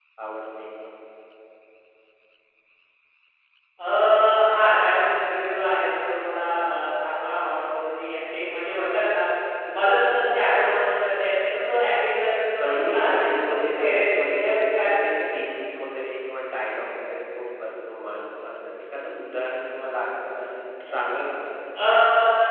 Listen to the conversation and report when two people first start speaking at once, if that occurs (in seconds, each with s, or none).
12.6 s